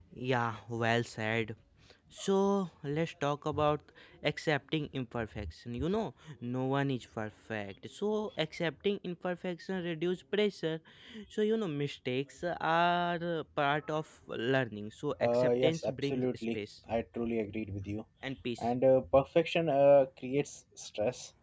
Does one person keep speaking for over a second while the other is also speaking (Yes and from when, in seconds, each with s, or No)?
Yes, from 15.2 s